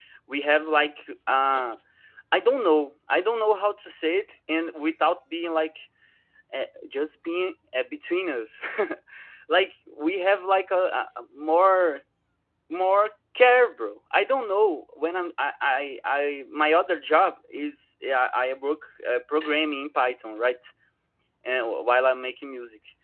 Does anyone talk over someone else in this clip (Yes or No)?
No